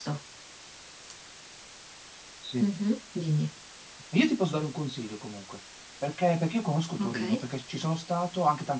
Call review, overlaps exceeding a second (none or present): none